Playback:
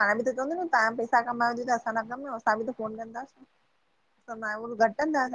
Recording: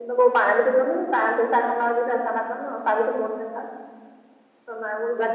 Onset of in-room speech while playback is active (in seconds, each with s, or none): none